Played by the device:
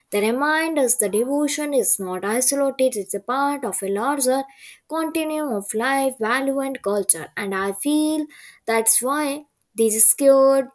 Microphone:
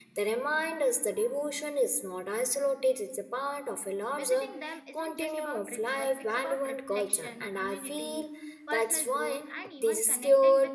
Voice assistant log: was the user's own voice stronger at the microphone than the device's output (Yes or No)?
No